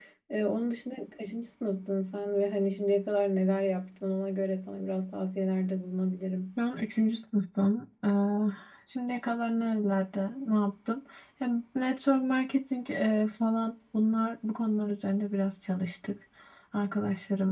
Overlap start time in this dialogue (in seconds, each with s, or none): none